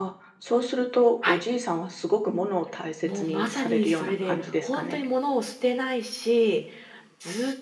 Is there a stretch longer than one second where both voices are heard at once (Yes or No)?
Yes